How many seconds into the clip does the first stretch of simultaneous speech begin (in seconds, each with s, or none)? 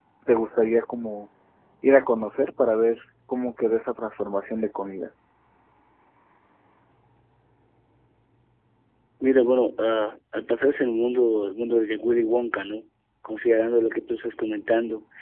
none